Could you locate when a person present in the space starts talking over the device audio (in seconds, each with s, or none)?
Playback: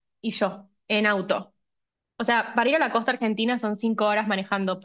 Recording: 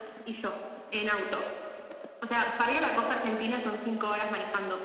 none